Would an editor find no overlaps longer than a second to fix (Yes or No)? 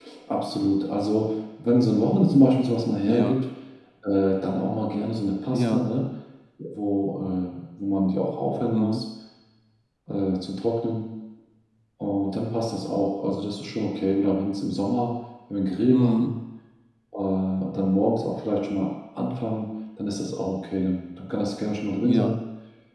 Yes